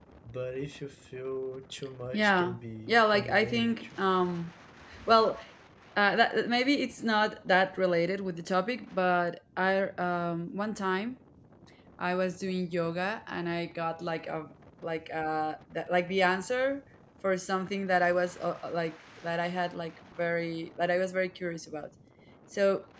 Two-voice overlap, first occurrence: 2.1 s

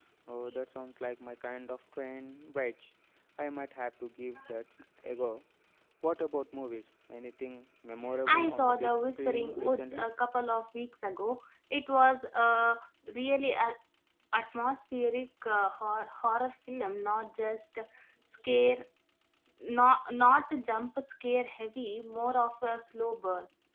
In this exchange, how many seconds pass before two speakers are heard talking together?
8.3 s

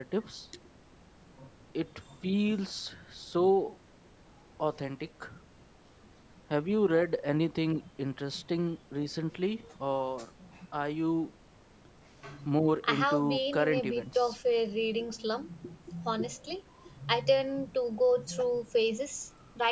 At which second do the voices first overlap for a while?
12.8 s

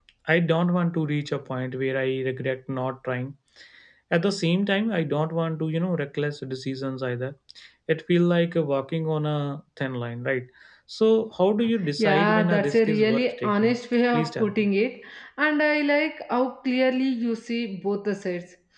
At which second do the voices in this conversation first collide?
12.0 s

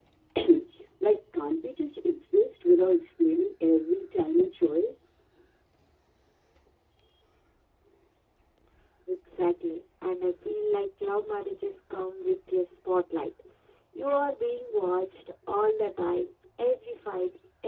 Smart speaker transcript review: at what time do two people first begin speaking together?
none

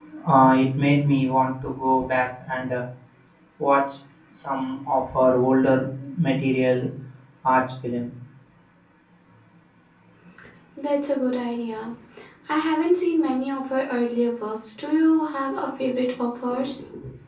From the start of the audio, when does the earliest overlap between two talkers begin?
none

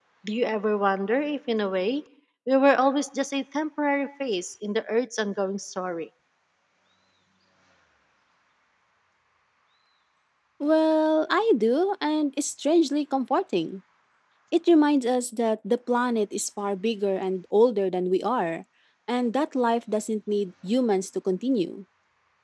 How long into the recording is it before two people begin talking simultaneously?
none

